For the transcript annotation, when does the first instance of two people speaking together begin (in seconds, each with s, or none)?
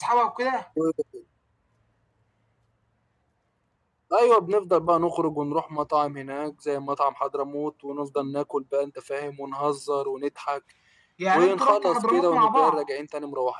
11.3 s